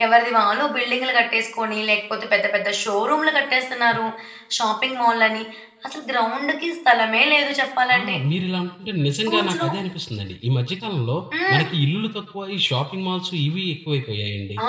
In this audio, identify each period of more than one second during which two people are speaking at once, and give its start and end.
none

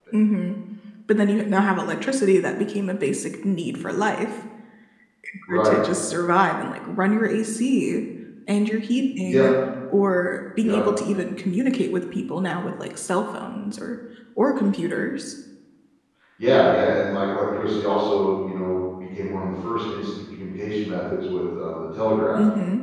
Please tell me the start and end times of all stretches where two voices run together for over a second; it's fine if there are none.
none

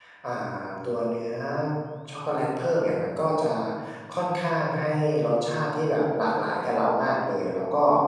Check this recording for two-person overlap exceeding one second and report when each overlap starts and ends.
none

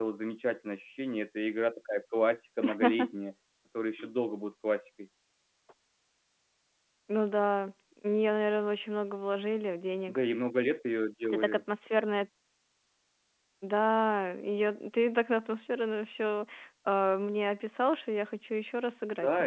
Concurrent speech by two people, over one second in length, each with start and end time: none

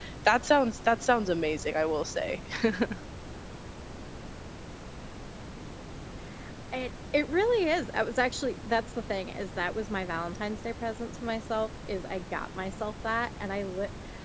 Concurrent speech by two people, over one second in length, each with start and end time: none

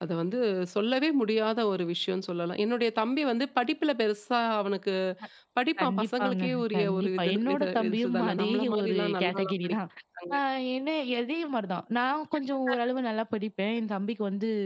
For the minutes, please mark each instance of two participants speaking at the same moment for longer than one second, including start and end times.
5.8-9.8

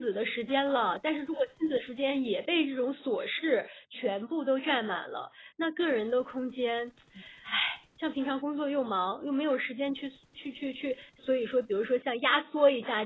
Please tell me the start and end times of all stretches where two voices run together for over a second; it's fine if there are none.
none

